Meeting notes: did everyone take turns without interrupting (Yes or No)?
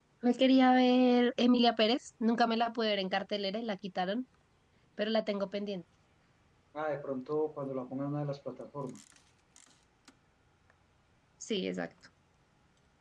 Yes